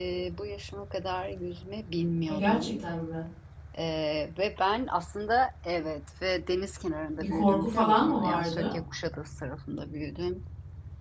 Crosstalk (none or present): present